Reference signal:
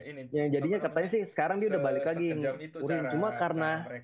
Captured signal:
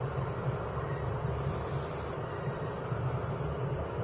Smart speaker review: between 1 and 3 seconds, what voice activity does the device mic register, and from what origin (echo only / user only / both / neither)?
neither